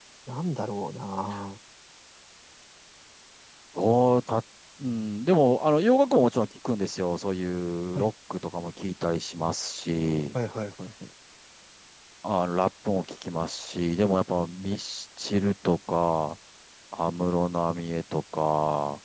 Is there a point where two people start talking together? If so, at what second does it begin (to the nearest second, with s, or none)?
none